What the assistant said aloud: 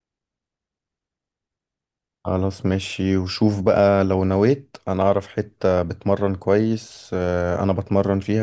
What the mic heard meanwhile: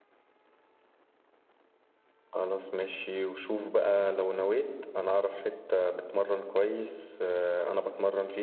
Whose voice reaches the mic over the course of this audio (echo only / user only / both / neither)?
echo only